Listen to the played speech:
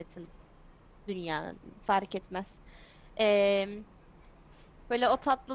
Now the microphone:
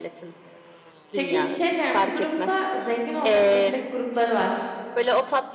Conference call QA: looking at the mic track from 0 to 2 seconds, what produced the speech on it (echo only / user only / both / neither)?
both